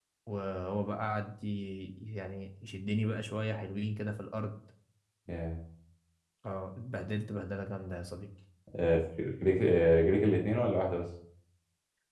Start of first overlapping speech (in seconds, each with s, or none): none